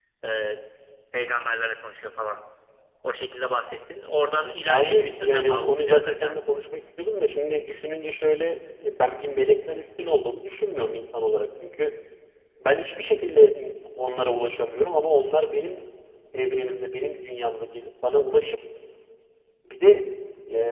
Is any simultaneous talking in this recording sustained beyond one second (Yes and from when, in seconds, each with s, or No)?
Yes, from 4.7 s